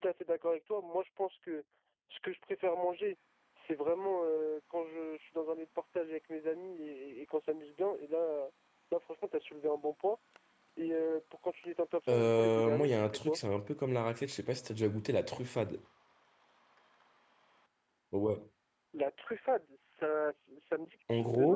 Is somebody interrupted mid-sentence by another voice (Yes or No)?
Yes